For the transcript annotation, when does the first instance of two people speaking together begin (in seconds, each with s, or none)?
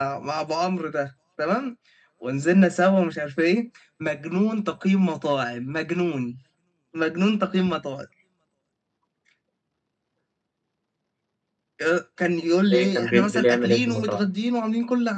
12.7 s